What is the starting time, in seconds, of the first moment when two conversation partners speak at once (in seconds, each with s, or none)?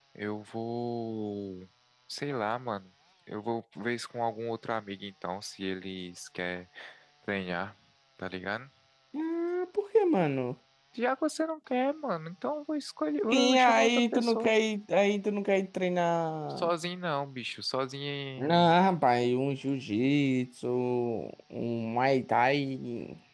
13.3 s